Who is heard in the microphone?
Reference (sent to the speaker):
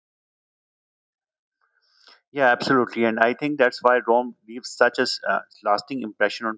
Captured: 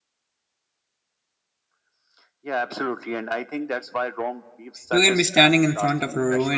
both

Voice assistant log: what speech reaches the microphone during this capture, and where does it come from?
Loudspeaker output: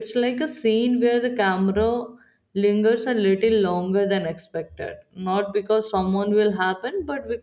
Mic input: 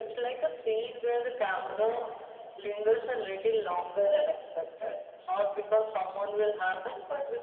echo only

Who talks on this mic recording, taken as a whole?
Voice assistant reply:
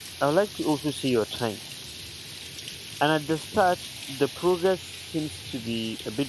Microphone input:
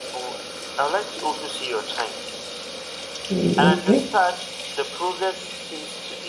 both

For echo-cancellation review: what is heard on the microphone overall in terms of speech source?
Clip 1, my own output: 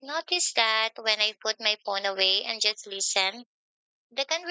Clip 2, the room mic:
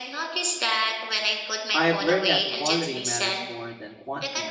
both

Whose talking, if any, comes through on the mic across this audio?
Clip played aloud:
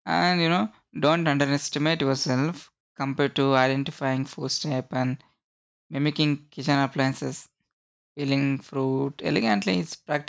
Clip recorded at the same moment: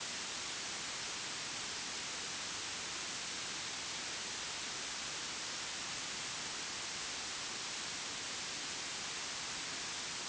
neither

